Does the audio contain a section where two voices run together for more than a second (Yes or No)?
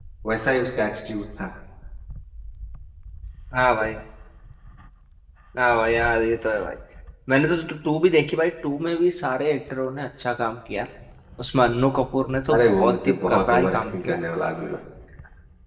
Yes